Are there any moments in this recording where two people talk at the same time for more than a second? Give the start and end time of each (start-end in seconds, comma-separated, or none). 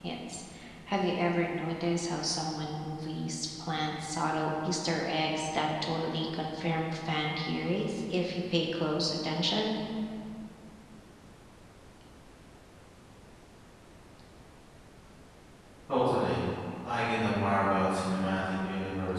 none